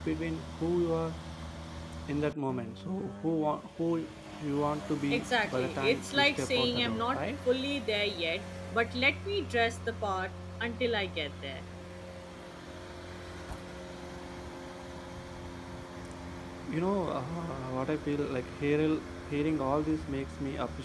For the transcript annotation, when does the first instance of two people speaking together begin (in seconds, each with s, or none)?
5.1 s